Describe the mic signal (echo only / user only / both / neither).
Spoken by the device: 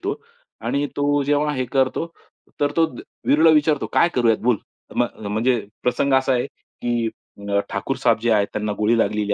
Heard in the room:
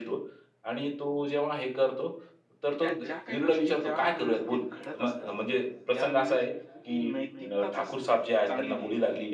both